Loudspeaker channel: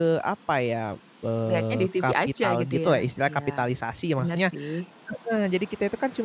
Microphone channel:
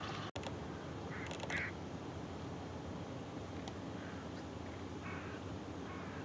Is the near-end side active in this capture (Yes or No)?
No